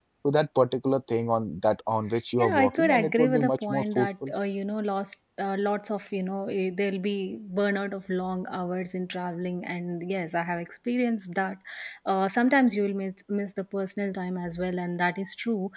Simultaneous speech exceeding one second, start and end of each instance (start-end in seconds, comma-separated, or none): 2.4-4.3